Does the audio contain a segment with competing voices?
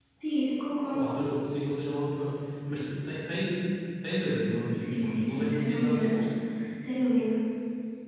Yes, from 4.8 s

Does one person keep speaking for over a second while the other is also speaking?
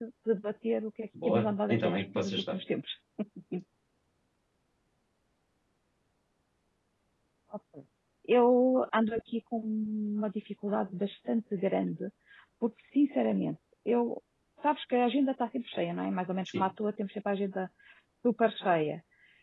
Yes, from 1.2 s

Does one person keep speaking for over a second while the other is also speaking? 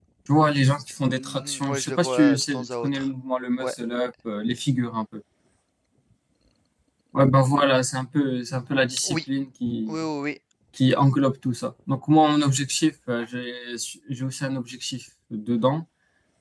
Yes, from 1.2 s

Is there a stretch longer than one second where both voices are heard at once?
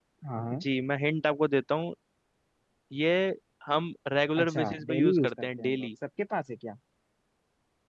Yes, from 4.4 s

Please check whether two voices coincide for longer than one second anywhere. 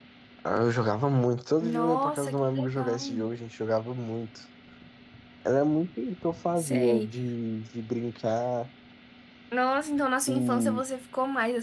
Yes, from 1.6 s

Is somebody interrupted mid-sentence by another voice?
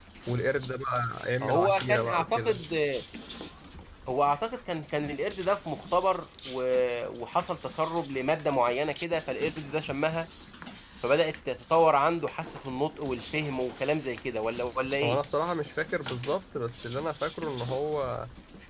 Yes, from 1.4 s

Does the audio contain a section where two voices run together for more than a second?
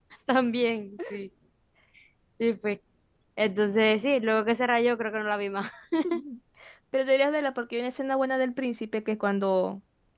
No

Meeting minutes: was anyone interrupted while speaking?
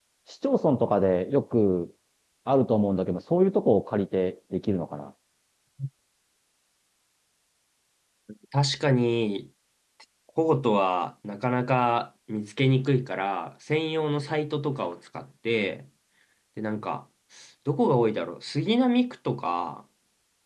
No

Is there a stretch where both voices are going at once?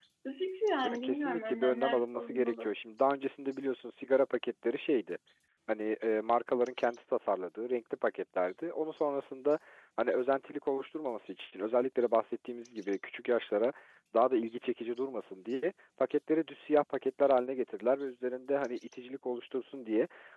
Yes, from 0.9 s

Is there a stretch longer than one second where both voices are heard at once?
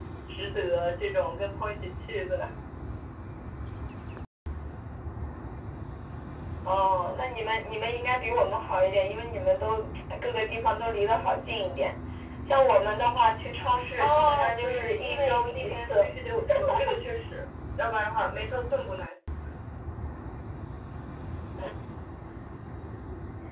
Yes, from 14.0 s

